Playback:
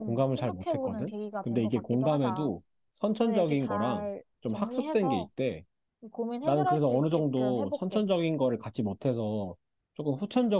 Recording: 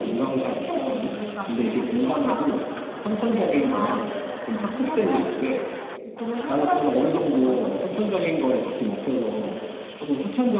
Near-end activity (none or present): none